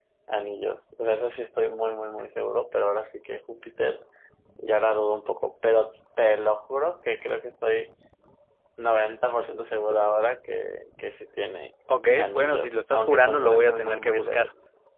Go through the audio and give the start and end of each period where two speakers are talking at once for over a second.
12.2-14.5

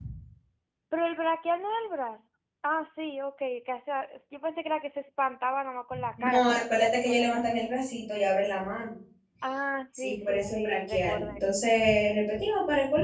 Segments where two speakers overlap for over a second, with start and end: 6.2-7.7, 10.0-11.3

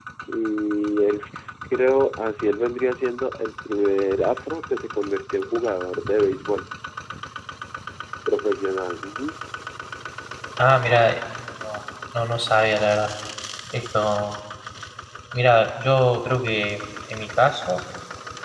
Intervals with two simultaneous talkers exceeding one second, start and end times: none

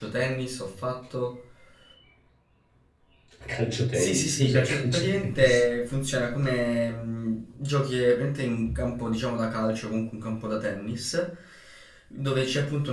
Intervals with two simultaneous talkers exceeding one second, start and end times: 3.9-5.6

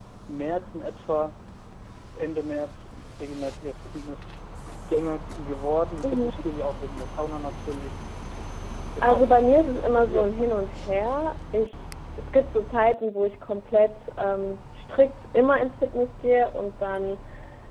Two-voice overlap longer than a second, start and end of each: 9.0-10.7

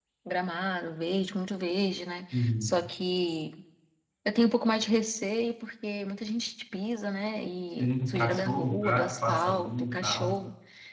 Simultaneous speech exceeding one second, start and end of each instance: 7.8-10.4

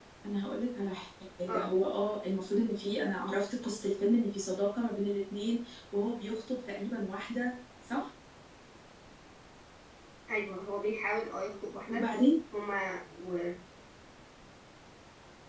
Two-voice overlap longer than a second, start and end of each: none

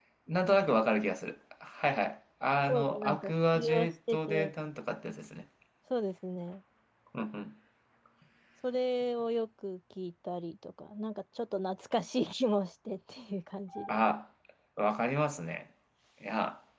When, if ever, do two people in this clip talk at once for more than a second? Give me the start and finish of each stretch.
2.7-4.5

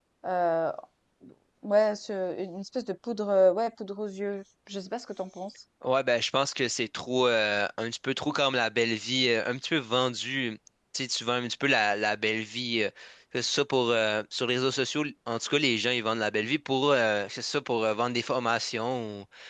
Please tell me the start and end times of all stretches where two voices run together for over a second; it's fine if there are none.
none

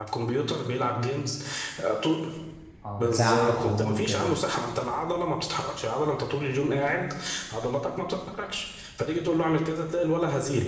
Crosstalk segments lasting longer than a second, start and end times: 3.0-4.3

